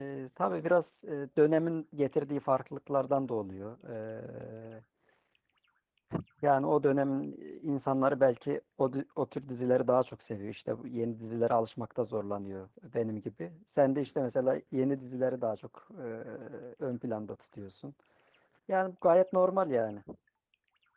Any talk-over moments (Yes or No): No